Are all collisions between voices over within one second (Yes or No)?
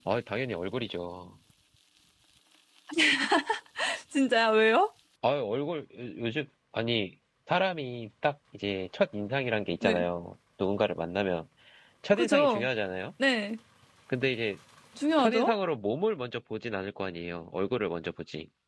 Yes